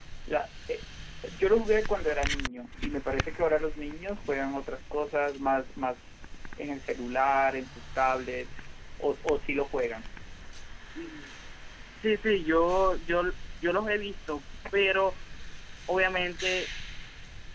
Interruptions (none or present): none